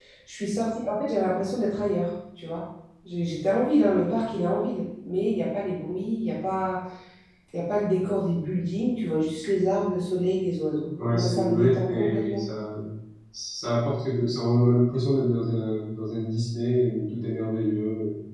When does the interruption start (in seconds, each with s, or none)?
11.0 s